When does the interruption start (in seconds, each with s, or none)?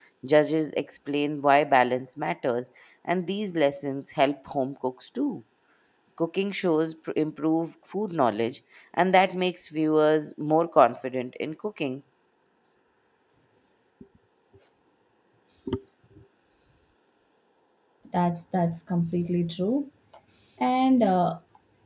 none